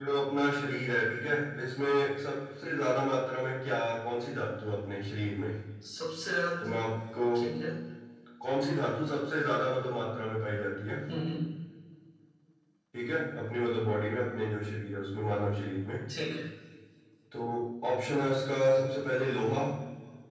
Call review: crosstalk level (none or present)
none